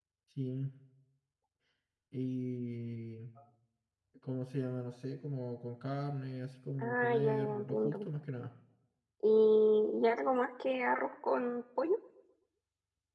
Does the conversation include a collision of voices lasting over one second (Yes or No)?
Yes